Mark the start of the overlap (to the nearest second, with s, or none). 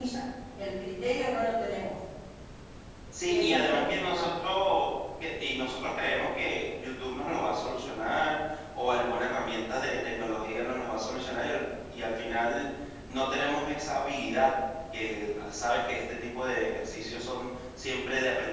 3 s